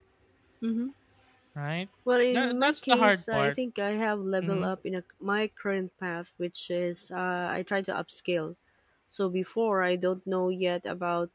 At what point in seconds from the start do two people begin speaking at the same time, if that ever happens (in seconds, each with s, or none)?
2.3 s